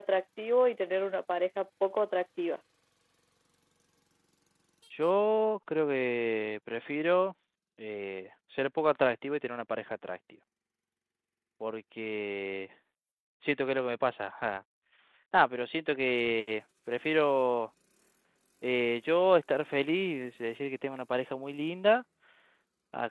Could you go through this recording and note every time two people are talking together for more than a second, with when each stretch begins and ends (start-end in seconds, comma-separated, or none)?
none